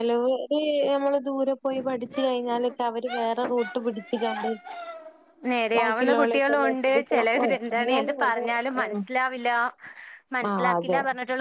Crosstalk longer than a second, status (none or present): present